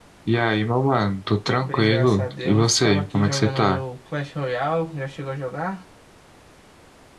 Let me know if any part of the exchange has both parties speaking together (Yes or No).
Yes